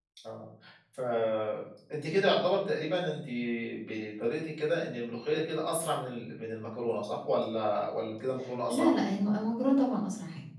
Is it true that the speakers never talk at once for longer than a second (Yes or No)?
Yes